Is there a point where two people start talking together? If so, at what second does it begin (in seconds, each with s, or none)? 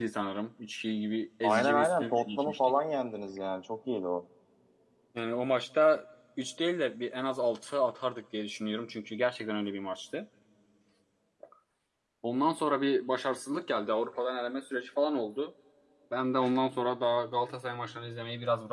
1.4 s